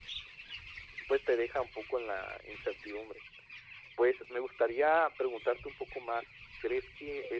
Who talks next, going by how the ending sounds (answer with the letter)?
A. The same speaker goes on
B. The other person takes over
A